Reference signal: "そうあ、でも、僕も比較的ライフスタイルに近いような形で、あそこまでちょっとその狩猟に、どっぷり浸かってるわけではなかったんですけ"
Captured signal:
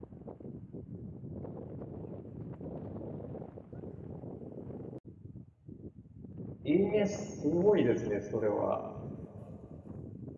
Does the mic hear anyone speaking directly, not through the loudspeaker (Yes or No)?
Yes